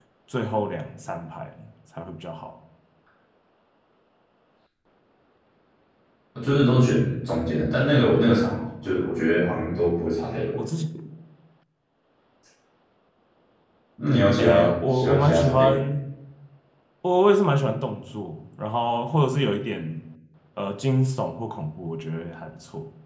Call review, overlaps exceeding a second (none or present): present